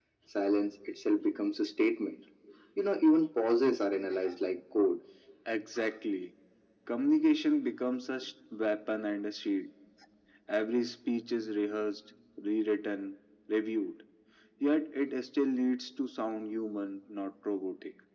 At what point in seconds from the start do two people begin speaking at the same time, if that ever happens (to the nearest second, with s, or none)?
none